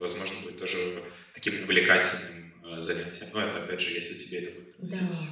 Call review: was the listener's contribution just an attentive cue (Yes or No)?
No